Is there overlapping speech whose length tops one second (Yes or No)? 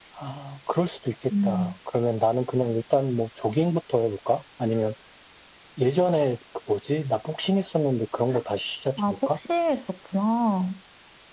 No